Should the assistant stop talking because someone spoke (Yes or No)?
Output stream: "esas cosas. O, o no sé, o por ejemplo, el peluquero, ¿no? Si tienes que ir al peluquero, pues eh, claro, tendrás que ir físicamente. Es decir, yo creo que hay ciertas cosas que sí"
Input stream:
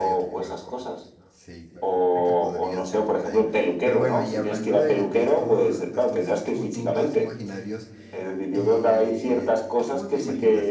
Yes